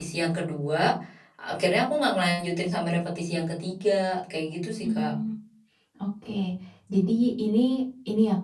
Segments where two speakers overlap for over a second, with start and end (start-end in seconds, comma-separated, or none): none